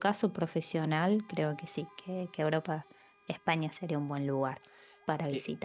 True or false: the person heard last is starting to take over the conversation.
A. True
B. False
A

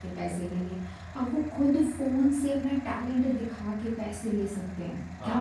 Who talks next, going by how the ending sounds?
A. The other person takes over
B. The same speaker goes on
A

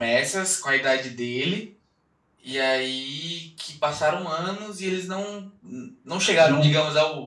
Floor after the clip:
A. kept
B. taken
A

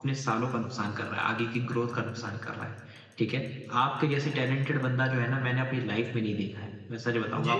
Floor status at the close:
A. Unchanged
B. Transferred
A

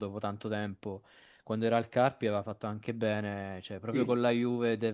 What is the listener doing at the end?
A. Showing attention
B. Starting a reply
A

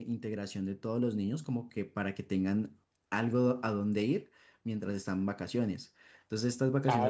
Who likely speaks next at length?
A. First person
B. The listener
B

